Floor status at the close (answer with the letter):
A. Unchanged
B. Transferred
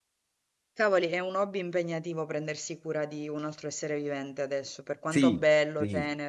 B